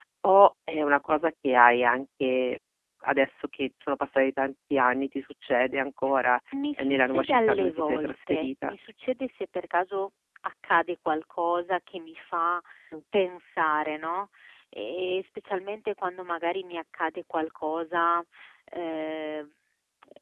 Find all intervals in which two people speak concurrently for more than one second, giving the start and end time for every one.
6.8-8.7

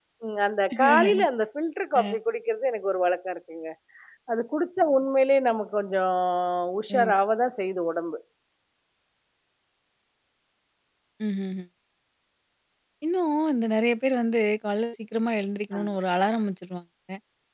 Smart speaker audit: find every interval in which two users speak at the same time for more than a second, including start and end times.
none

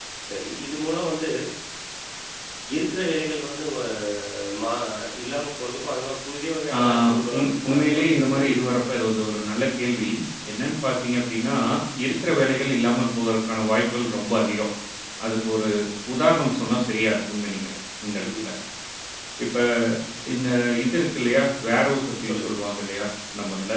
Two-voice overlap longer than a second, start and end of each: 7.3-8.8

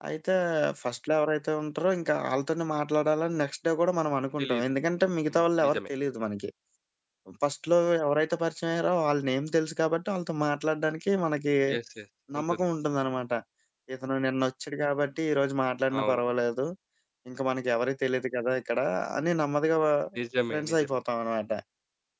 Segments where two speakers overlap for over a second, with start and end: none

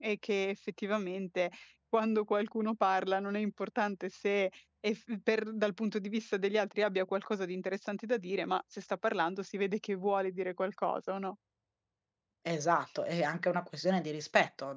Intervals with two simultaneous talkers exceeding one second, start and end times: none

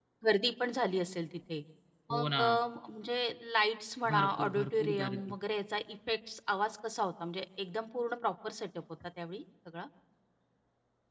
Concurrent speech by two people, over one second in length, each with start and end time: 4.1-5.3

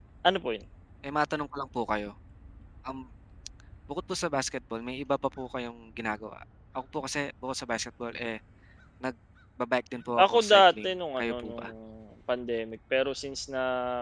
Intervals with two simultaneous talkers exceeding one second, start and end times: 10.2-11.7

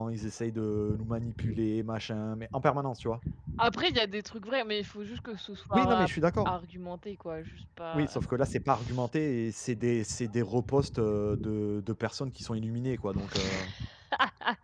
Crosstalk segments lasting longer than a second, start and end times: none

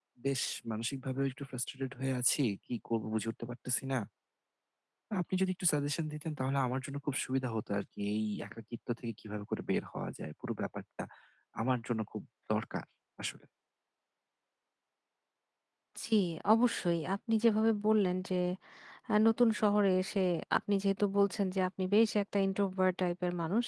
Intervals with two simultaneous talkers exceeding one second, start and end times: none

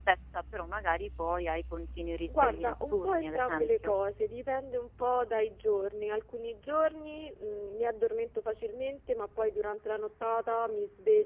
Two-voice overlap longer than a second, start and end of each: 2.3-3.9

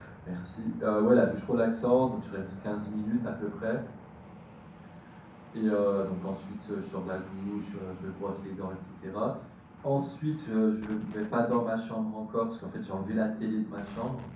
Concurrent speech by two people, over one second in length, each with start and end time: none

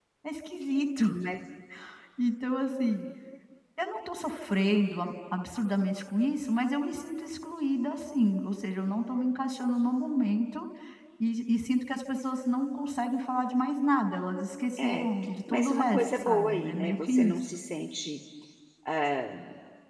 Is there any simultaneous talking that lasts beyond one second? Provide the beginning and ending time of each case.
15.5-17.5

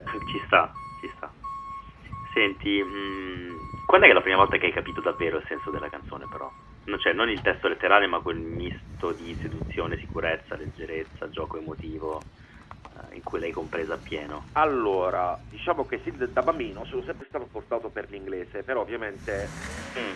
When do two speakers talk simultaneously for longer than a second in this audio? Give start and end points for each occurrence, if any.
none

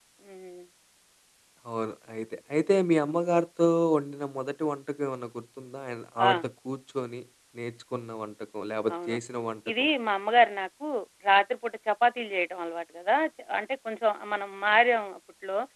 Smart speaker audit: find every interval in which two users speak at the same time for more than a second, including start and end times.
none

